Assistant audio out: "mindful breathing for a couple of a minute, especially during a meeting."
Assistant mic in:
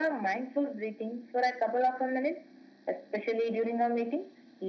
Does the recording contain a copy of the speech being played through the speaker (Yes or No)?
Yes